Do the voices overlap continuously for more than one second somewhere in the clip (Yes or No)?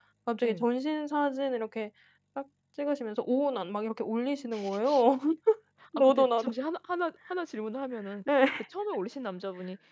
No